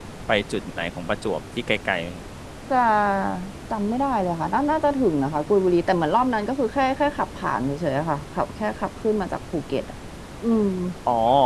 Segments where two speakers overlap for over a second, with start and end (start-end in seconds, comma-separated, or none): none